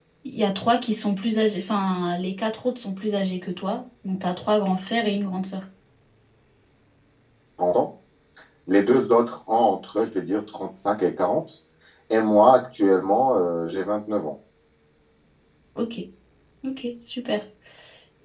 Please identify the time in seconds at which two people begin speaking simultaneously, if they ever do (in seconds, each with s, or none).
none